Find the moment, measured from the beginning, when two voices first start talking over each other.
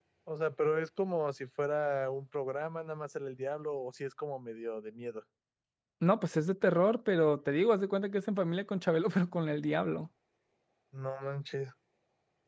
none

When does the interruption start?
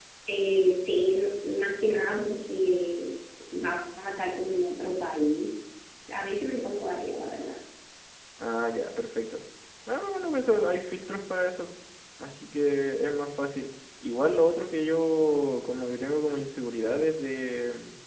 none

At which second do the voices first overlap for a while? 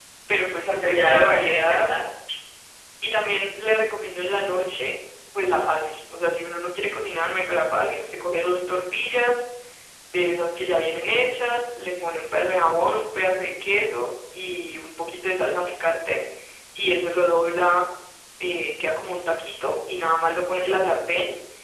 0.6 s

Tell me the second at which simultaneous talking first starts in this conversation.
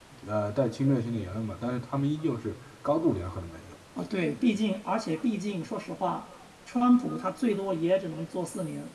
none

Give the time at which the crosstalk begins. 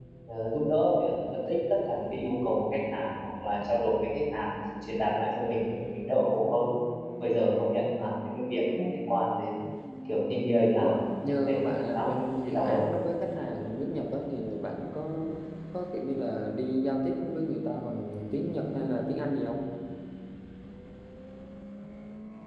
10.8 s

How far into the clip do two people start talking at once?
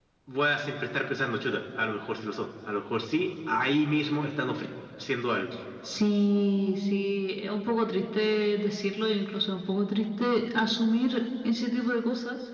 none

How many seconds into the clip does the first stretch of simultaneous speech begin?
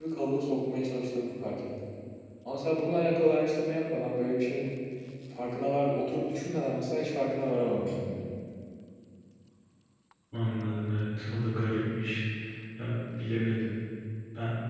none

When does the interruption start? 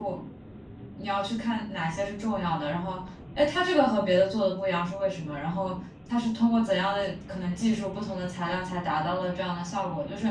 none

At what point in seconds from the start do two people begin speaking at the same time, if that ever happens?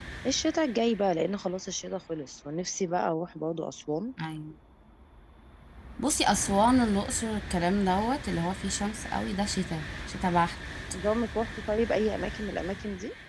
none

